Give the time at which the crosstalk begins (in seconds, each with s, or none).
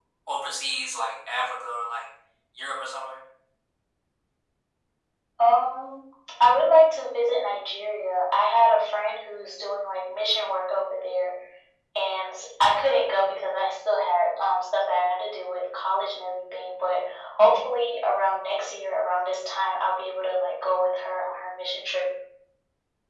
none